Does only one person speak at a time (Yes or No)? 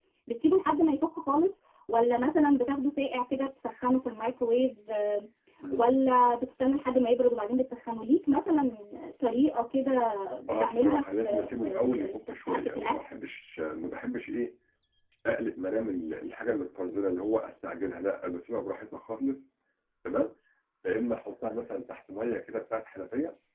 No